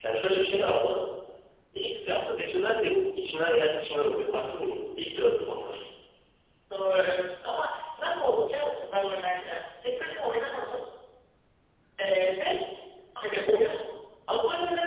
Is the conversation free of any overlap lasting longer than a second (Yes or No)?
Yes